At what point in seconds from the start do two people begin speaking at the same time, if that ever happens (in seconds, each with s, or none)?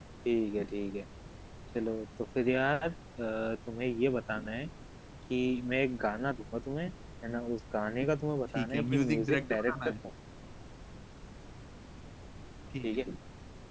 8.5 s